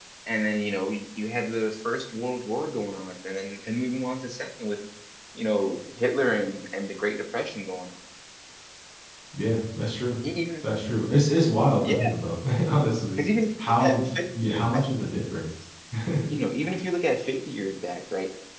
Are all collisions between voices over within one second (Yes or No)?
No